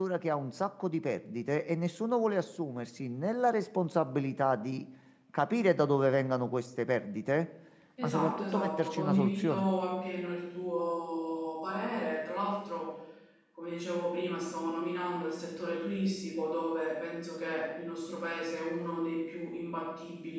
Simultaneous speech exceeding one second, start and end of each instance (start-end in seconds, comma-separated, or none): 8.0-9.7